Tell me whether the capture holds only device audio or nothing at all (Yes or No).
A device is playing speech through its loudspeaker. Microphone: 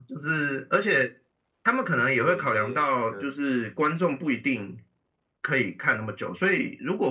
No